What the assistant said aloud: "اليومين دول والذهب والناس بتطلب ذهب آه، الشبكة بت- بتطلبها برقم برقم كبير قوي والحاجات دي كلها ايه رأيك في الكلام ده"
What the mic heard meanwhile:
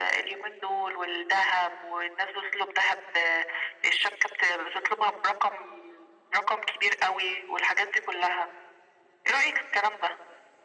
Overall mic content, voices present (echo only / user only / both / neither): echo only